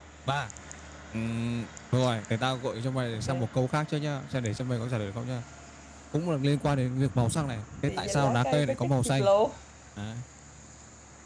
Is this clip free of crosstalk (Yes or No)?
No